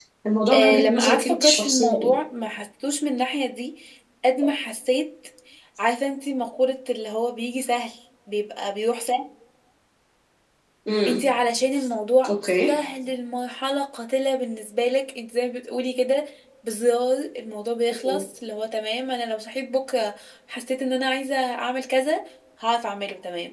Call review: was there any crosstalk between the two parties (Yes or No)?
Yes